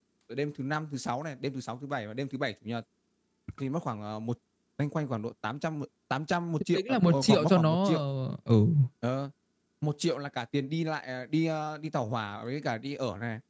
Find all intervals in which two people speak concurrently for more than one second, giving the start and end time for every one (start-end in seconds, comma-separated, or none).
6.8-8.0